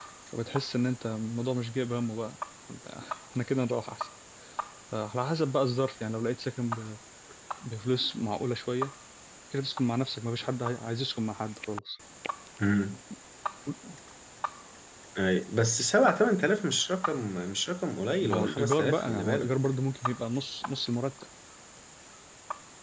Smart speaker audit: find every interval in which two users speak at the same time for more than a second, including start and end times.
18.2-19.5

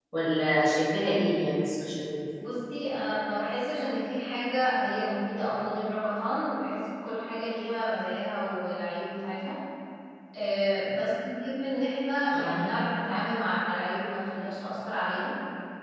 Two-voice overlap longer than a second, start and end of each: none

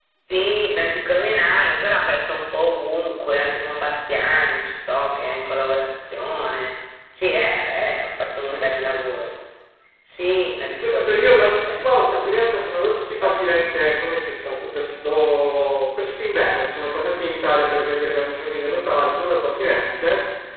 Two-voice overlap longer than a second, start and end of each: 10.8-12.3

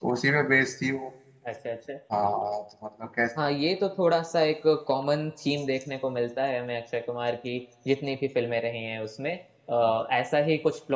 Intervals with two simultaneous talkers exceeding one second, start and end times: none

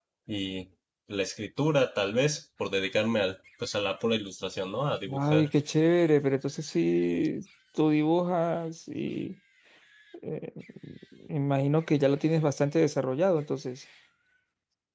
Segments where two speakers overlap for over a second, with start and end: none

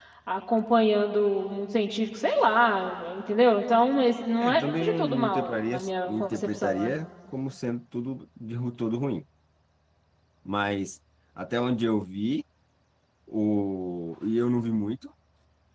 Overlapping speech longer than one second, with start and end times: 4.4-6.9

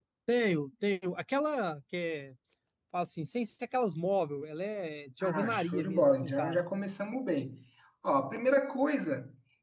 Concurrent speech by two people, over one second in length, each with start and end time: 5.2-6.6

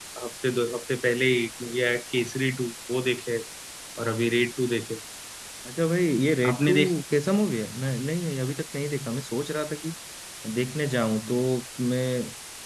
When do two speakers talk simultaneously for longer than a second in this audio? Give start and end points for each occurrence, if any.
none

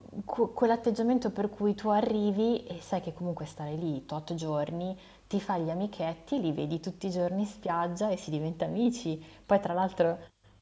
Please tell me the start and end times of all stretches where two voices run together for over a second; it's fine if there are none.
none

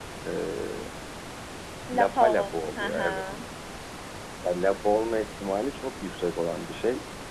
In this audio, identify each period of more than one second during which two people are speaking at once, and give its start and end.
1.9-3.2

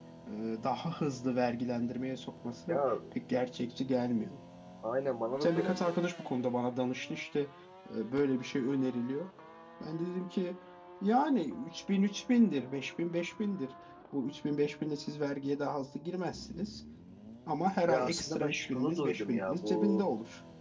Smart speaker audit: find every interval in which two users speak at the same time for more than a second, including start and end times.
17.9-20.0

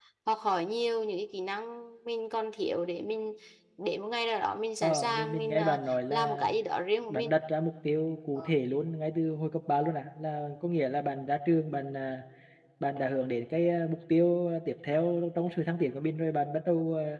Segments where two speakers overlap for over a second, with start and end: 4.8-6.5

